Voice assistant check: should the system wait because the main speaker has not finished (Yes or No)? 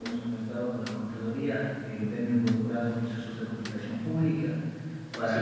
Yes